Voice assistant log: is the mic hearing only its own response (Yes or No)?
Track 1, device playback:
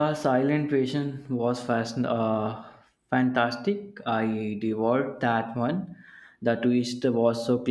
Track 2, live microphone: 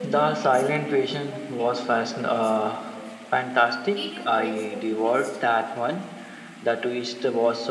No